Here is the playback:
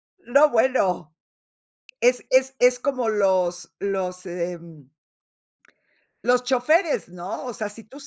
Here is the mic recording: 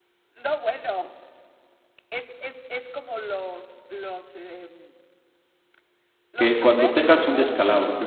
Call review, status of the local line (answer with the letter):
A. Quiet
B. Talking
B